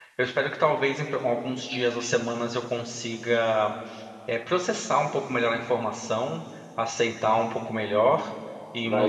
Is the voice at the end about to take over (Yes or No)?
No